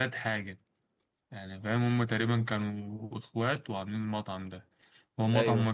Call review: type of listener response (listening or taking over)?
listening